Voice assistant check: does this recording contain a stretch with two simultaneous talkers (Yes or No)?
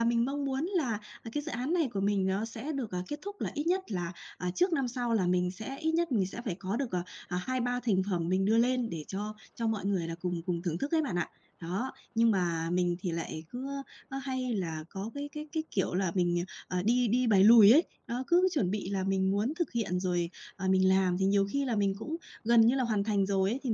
No